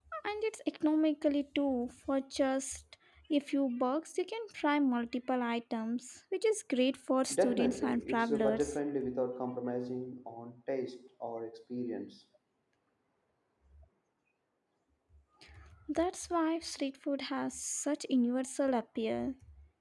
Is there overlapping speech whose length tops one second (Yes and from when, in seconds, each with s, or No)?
Yes, from 7.3 s